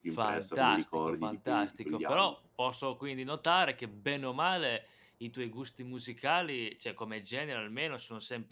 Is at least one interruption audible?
Yes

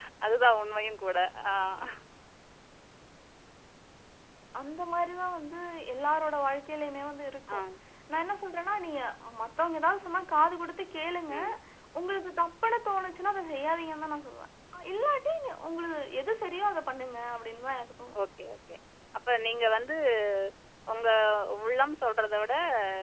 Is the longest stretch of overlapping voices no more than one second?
Yes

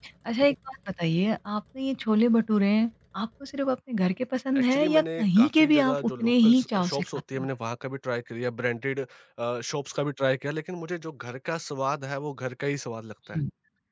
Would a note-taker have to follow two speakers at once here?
Yes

